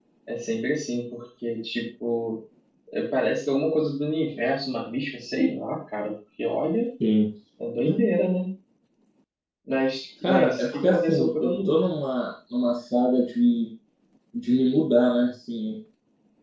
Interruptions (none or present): present